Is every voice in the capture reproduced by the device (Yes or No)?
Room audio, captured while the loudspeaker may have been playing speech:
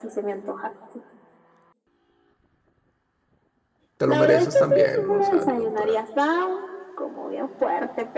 No